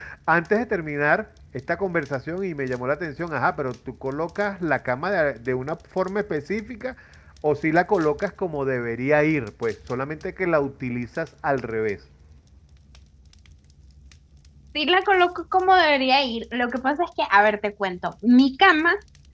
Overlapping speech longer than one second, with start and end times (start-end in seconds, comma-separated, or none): none